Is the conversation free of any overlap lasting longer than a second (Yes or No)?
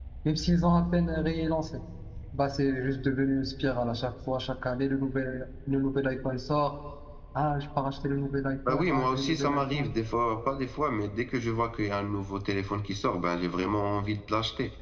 No